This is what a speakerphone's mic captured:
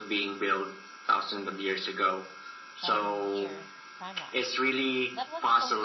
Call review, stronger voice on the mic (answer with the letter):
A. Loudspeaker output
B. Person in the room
A